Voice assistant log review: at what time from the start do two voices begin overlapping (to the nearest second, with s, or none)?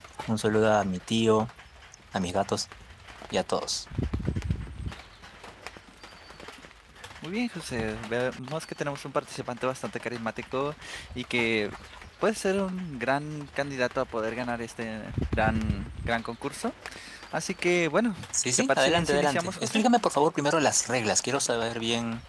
19 s